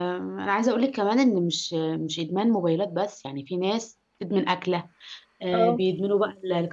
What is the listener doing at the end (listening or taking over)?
listening